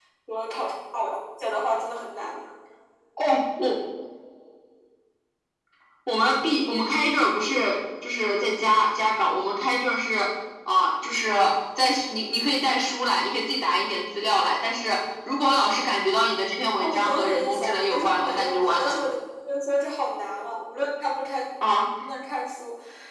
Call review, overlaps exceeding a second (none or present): present